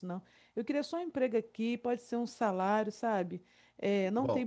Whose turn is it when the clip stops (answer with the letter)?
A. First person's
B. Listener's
B